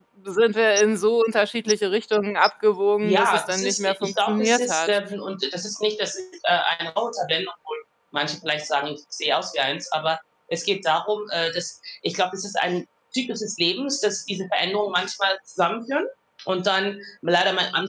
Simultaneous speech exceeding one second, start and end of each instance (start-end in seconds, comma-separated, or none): 3.0-4.9